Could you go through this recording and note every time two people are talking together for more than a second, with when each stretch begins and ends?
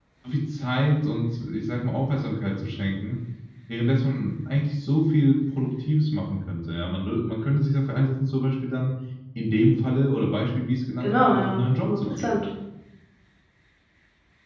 11.0-12.3

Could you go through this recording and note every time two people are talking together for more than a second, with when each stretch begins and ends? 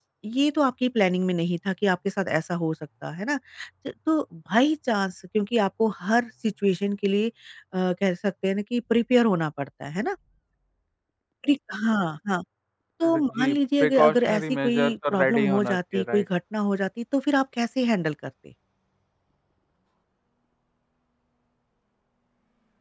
13.1-16.2

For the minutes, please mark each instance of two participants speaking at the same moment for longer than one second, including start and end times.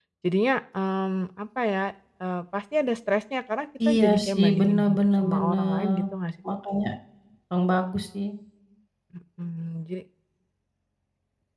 3.9-6.0

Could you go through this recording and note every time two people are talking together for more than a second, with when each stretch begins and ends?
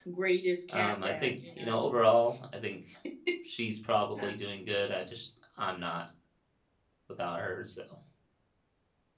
0.7-1.9

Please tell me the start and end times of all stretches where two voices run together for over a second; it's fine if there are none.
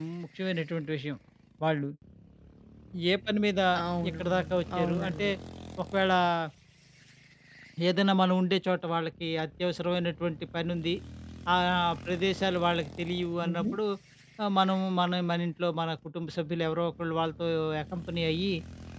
4.1-5.3

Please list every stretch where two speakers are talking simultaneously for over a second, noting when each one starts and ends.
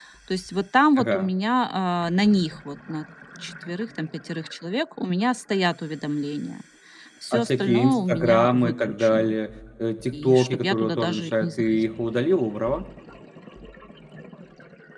7.3-9.3, 10.1-11.6

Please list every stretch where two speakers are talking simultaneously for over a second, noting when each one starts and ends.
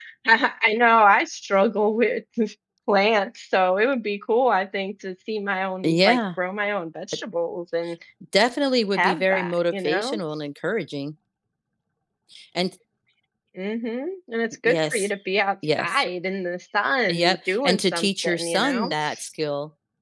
8.9-10.2, 17.1-18.9

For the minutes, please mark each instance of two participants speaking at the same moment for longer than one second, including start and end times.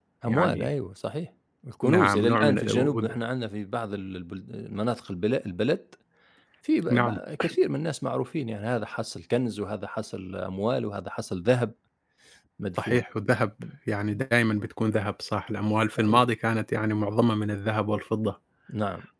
1.8-3.2

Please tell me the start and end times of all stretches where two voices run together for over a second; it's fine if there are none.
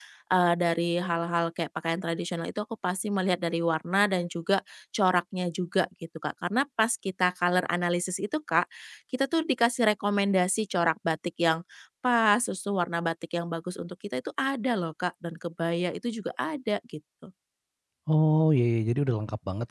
none

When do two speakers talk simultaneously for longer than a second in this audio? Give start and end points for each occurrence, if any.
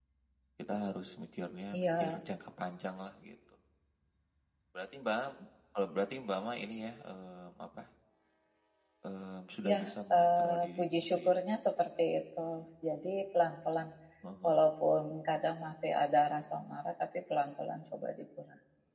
10.2-11.4

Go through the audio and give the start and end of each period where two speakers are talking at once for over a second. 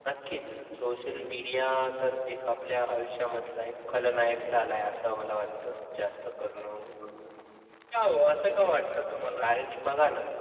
none

